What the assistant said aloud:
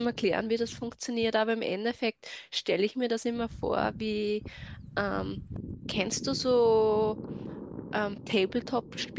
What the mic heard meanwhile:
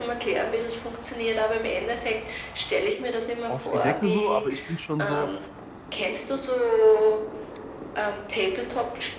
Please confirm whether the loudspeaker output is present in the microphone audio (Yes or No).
Yes